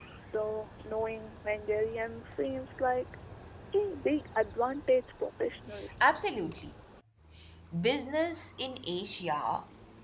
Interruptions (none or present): none